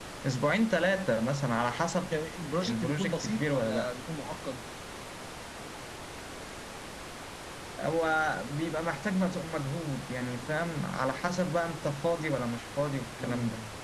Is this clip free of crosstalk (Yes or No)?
No